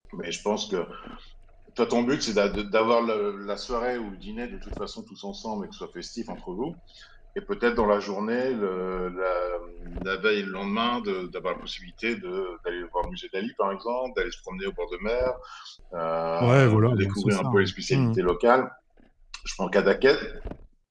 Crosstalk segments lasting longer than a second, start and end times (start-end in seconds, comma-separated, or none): 16.4-18.2